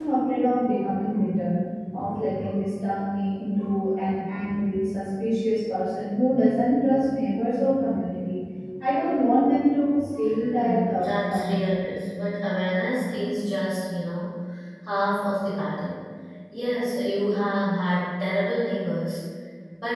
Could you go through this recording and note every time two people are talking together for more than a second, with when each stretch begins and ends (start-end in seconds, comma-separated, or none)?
10.4-11.7